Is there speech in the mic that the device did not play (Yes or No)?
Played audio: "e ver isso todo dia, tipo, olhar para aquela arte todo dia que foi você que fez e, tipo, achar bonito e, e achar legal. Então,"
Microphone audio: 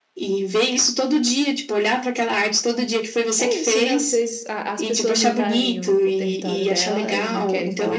Yes